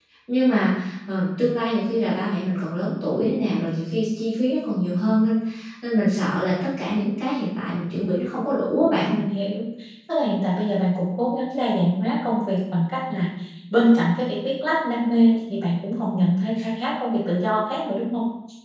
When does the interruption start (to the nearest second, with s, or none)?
none